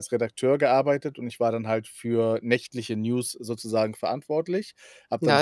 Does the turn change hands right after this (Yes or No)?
Yes